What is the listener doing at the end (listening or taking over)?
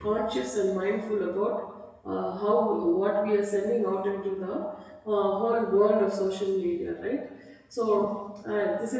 listening